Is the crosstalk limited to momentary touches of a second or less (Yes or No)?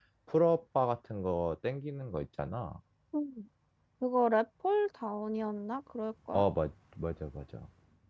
Yes